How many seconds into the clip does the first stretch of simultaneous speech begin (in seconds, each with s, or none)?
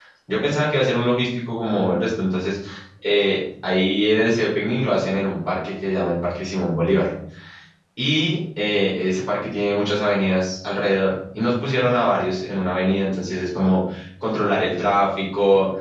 none